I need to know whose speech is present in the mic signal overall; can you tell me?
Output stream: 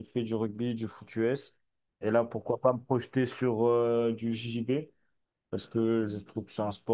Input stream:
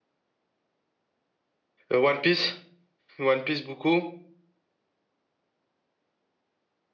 user only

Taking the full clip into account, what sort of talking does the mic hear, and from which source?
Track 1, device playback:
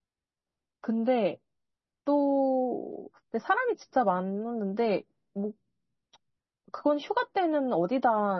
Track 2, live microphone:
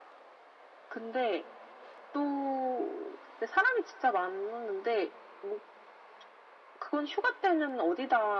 echo only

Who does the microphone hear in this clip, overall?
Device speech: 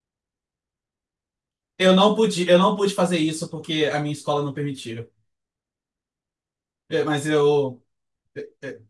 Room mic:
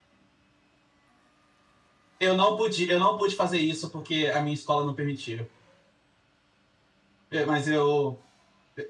echo only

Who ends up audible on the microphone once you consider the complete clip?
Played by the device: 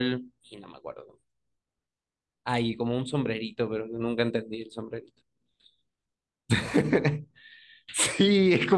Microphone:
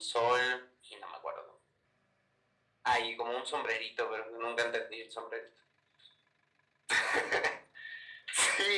echo only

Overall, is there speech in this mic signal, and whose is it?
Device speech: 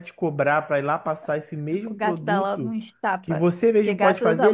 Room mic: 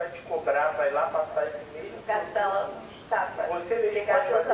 echo only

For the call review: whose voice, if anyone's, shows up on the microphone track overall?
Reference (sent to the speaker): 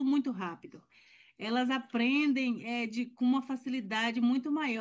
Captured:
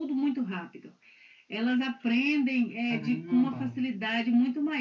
both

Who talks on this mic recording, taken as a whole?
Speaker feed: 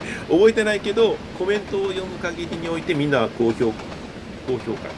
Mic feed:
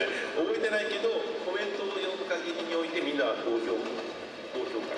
echo only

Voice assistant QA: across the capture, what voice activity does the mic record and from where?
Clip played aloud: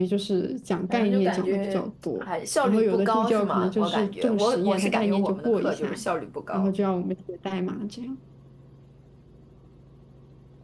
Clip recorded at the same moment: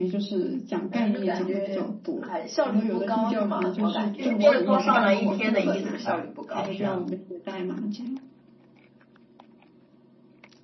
both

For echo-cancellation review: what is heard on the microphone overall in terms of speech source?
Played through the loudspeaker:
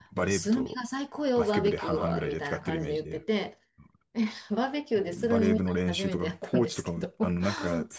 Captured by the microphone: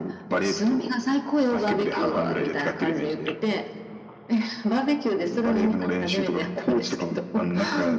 echo only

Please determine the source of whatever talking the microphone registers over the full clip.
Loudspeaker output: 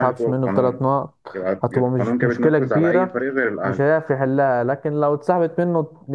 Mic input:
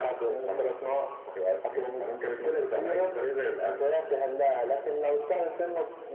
echo only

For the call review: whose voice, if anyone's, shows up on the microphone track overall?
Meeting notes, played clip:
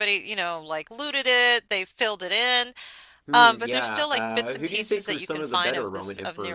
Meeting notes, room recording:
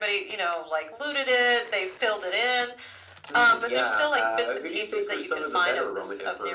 echo only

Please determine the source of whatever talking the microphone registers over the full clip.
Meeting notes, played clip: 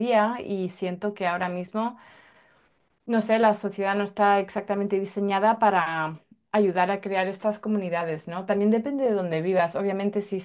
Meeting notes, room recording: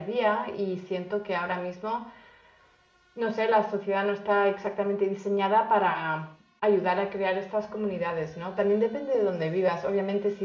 echo only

